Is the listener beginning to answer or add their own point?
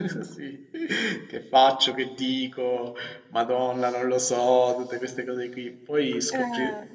No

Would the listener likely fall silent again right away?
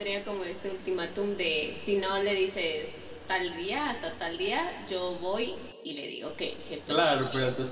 No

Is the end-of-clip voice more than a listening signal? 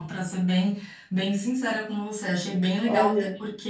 No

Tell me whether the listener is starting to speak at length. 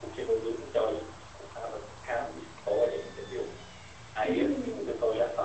No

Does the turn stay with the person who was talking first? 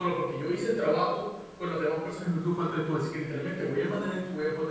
Yes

